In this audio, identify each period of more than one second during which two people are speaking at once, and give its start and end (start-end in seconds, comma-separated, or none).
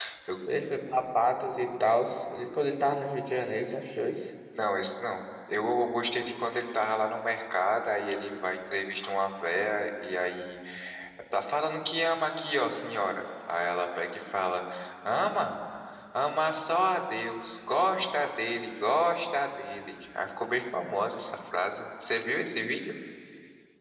none